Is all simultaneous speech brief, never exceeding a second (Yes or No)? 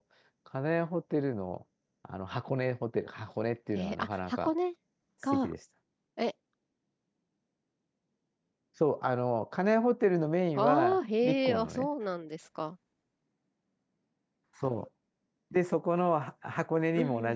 No